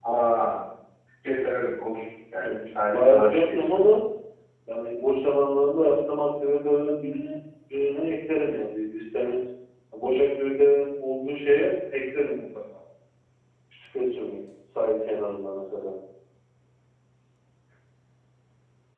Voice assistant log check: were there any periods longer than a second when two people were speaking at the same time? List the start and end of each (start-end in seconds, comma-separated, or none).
2.4-3.8